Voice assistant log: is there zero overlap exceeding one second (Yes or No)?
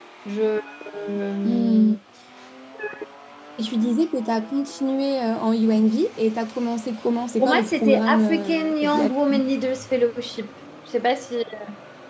No